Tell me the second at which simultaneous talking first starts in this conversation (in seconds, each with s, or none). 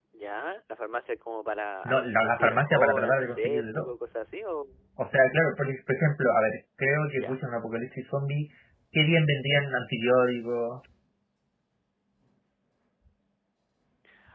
1.9 s